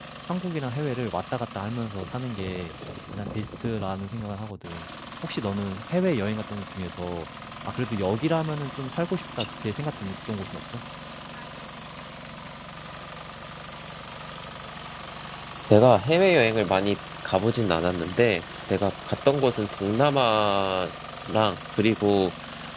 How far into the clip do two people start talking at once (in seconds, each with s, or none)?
none